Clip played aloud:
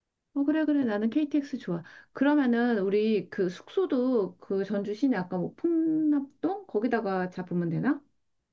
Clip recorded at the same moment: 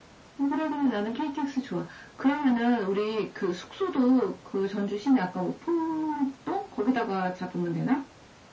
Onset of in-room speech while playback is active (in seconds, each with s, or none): none